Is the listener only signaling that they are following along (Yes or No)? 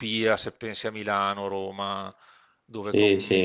No